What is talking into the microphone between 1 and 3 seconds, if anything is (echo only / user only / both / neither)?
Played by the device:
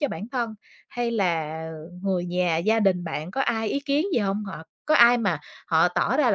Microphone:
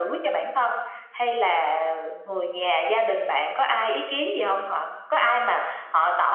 echo only